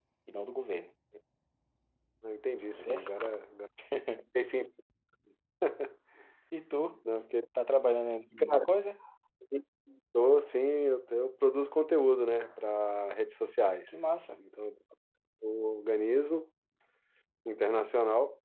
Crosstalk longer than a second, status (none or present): none